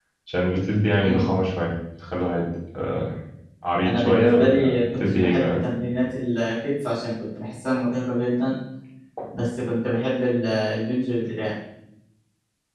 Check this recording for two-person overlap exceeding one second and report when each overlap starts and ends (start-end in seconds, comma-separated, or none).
3.8-5.6